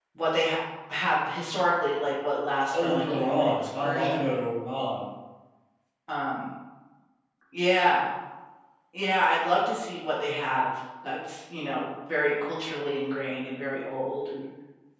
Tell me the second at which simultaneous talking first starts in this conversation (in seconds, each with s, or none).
2.7 s